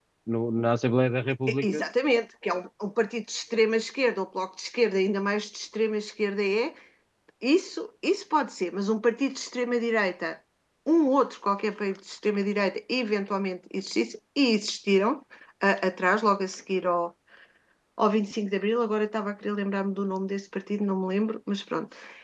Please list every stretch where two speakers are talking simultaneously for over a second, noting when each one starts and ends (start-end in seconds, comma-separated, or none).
none